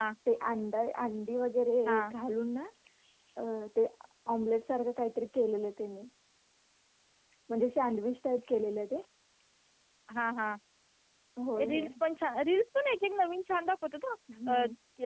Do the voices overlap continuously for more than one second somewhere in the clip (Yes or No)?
No